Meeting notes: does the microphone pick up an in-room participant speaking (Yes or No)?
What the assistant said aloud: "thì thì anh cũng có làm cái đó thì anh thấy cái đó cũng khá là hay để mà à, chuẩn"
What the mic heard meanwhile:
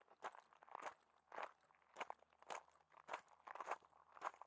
No